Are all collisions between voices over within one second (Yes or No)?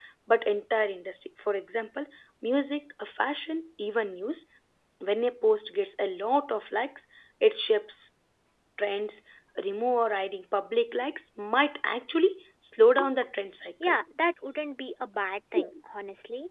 Yes